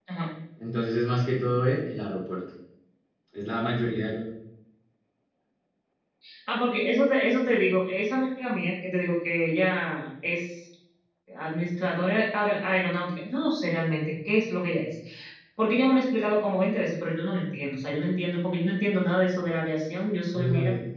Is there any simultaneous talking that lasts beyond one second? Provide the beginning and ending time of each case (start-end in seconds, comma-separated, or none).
none